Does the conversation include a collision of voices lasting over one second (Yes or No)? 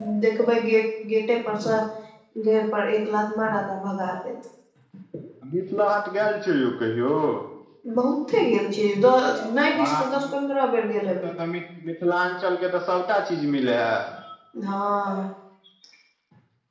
No